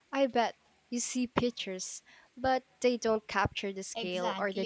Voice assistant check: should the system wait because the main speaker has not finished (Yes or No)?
No